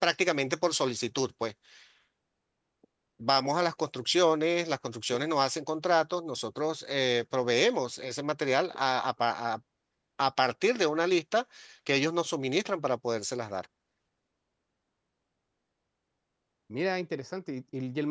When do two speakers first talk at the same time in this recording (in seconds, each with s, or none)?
none